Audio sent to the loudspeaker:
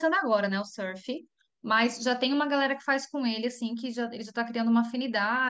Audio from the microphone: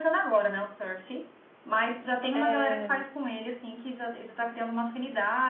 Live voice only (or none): É, é,